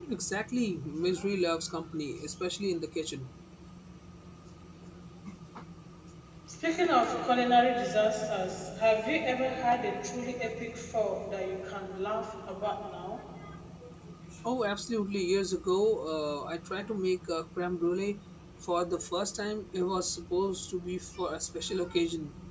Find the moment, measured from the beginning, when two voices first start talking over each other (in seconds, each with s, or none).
none